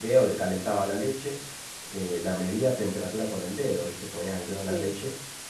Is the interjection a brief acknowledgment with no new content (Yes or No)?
Yes